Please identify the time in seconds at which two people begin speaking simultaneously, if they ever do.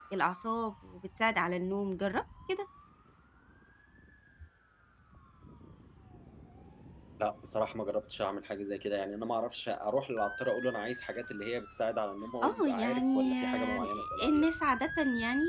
12.4 s

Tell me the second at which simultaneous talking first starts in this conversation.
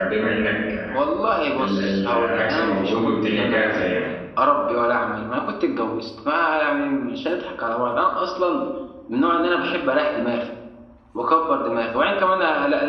1.6 s

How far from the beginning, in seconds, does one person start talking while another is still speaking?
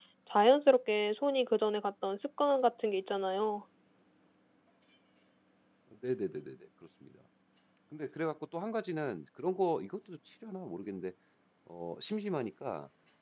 none

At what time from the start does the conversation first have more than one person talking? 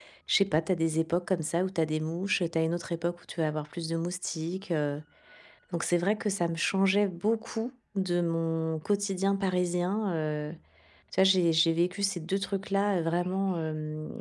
none

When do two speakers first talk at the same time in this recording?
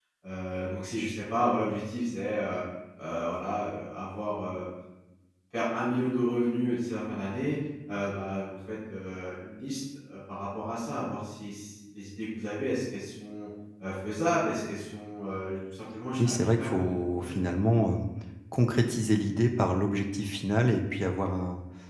16.2 s

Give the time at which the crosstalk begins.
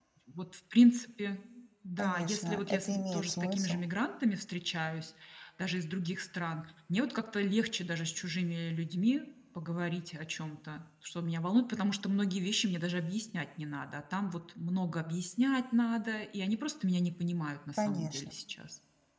2.0 s

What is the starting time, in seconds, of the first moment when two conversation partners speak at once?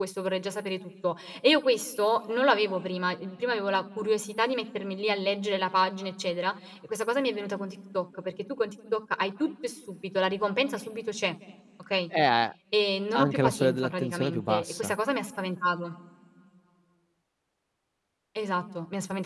13.2 s

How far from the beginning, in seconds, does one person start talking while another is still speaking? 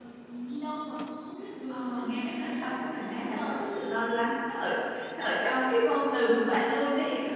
1.7 s

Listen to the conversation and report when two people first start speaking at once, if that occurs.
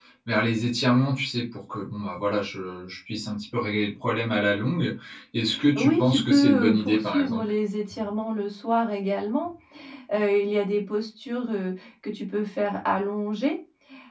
5.8 s

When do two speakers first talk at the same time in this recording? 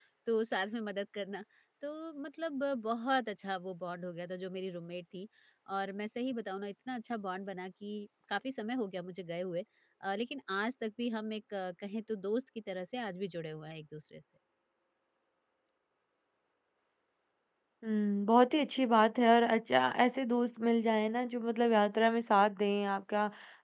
none

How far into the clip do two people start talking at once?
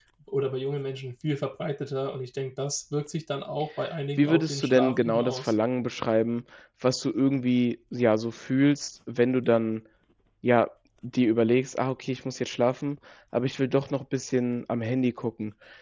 4.2 s

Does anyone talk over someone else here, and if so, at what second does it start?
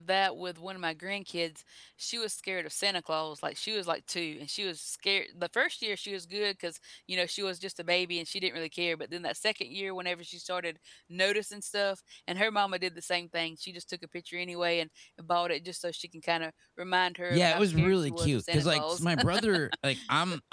17.3 s

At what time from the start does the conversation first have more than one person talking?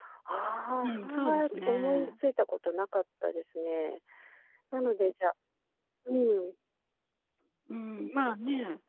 0.8 s

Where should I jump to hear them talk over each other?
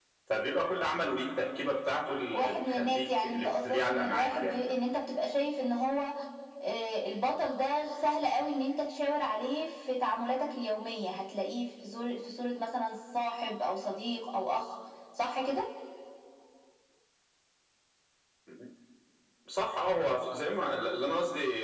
2.3 s

